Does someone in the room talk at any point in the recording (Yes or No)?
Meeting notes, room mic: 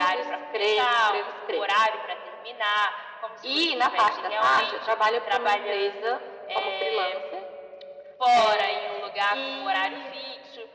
No